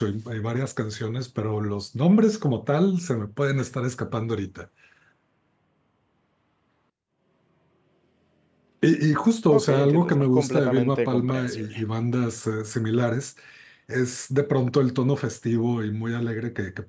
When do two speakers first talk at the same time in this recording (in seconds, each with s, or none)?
9.5 s